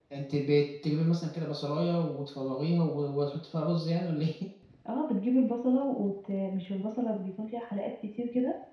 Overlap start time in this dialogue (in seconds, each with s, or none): none